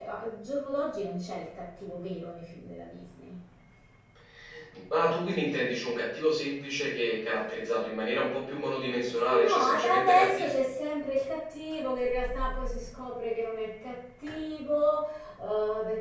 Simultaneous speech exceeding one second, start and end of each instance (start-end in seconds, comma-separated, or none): 9.3-10.5